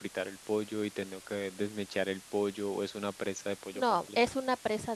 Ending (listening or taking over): taking over